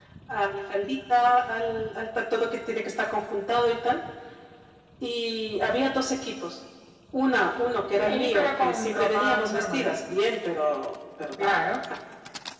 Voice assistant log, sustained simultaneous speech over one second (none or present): present